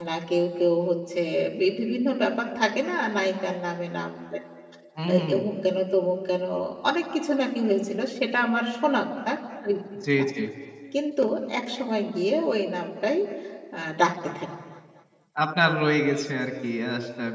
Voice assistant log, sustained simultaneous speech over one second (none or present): none